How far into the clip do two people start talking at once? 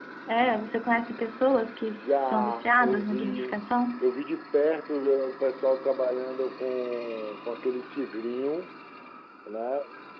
1.8 s

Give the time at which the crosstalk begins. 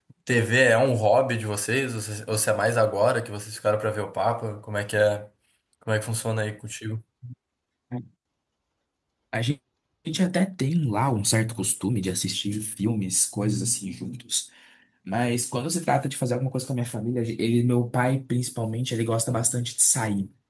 none

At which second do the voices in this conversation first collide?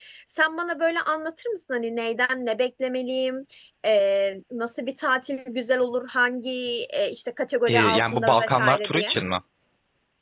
7.7 s

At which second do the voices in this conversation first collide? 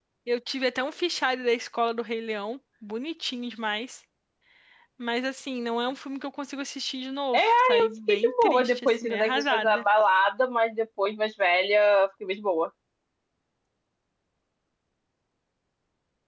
7.3 s

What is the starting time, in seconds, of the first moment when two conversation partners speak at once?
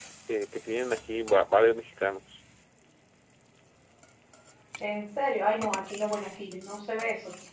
none

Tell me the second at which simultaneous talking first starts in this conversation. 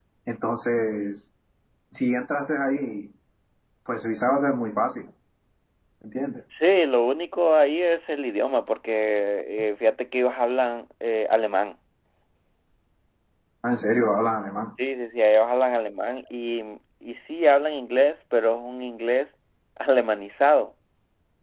none

